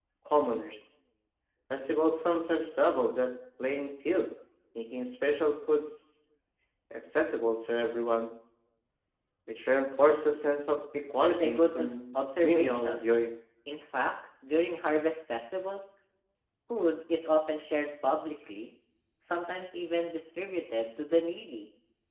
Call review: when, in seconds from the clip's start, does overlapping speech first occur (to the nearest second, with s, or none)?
11 s